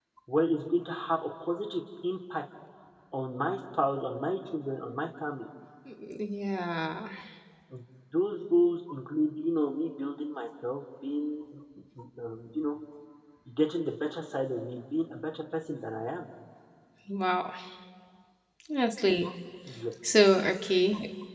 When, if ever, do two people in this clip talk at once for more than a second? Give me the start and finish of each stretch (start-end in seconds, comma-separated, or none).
none